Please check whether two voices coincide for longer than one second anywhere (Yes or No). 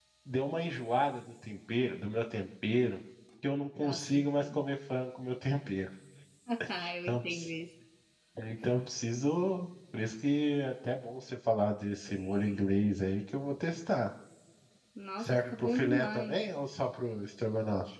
Yes